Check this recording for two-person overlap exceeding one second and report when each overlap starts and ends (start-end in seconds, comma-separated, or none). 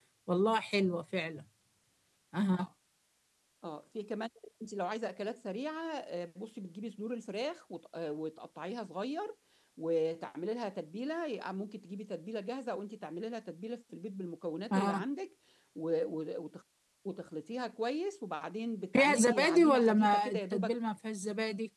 18.9-20.8